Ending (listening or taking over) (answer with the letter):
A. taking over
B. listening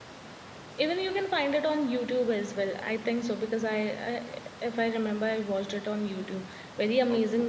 B